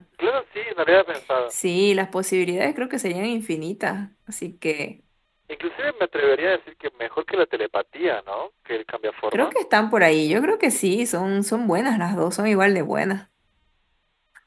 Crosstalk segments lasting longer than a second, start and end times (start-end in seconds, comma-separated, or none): none